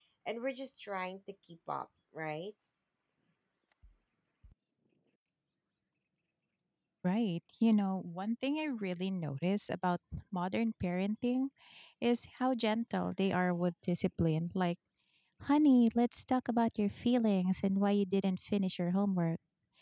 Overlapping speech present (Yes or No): No